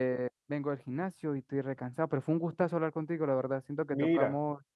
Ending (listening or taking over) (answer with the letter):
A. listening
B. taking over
A